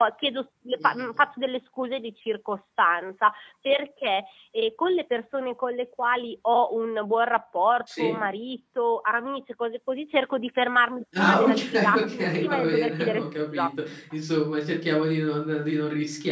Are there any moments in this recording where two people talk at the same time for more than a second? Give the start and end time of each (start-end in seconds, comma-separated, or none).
11.2-13.7